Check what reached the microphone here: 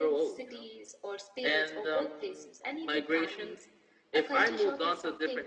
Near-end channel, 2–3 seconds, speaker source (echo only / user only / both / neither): echo only